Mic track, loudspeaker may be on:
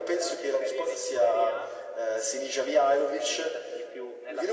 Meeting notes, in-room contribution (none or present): none